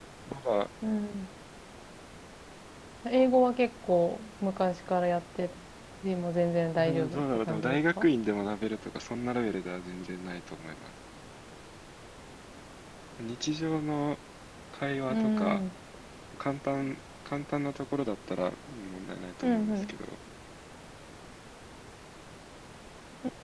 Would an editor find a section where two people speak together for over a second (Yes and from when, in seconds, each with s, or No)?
Yes, from 6.8 s